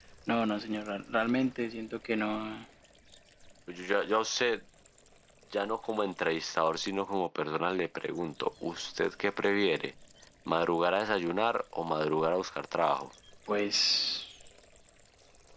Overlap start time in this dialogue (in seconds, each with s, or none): none